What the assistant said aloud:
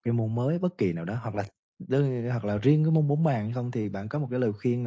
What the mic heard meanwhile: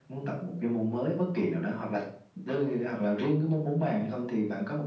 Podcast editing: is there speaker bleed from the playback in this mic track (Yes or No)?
Yes